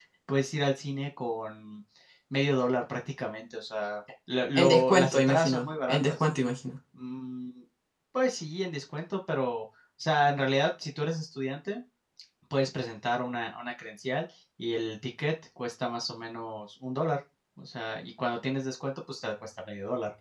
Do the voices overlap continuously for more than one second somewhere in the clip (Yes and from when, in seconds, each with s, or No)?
Yes, from 4.5 s